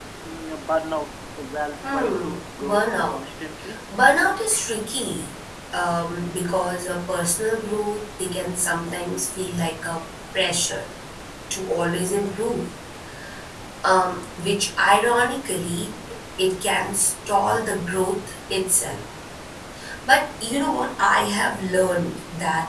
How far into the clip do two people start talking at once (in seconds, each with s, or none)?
1.8 s